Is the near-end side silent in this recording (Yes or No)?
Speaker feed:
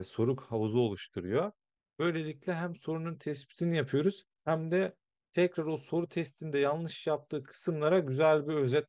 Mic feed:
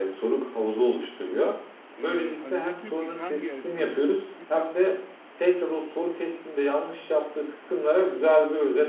No